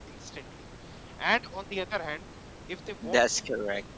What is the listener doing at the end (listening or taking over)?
listening